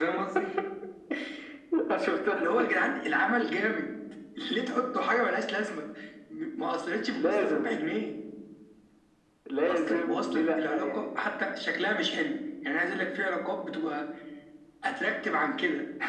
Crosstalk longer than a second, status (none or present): present